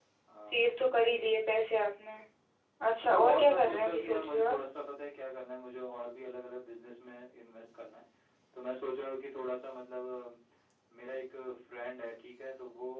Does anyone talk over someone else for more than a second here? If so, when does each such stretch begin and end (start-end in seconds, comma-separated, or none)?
3.0-4.6